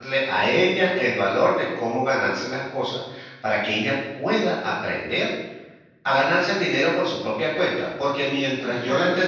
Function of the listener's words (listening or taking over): listening